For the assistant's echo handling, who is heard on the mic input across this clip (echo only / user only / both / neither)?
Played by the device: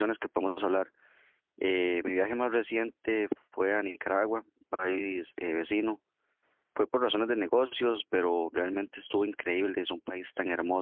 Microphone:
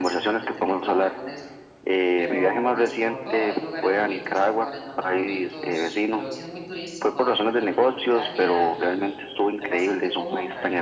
both